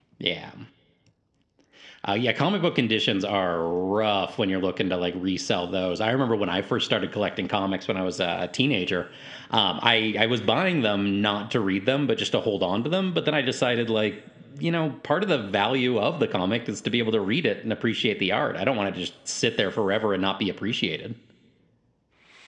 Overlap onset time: none

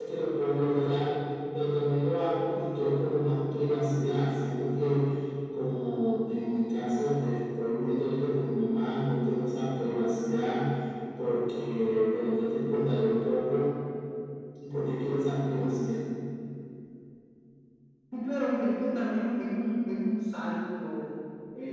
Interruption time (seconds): none

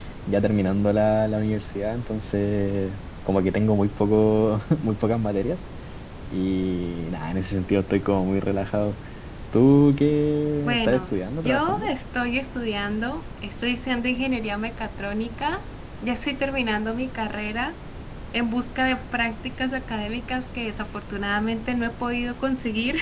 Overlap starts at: 11 s

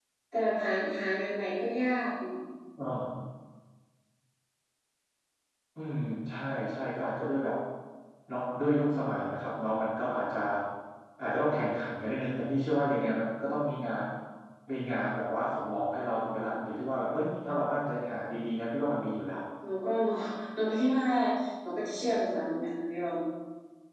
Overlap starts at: none

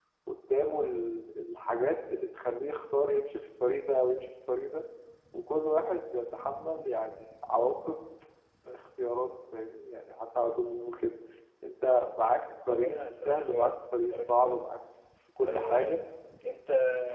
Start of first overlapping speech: 13 s

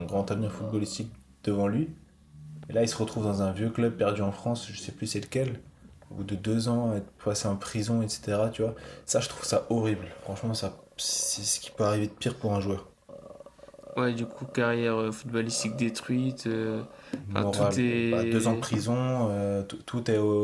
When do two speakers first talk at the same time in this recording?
17 s

